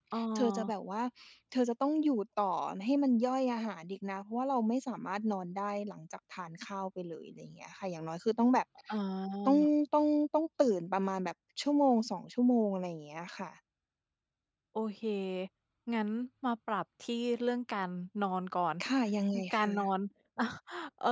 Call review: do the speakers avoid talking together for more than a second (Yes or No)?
Yes